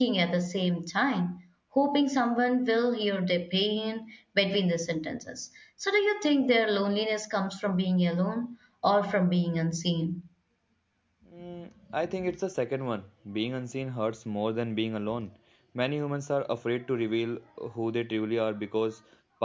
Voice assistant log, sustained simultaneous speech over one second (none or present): none